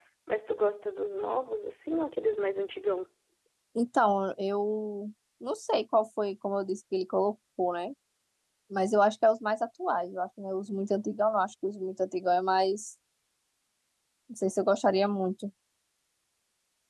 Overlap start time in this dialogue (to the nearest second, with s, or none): none